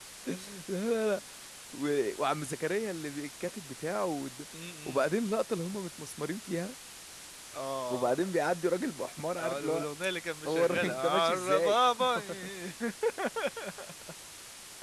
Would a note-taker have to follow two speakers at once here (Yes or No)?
Yes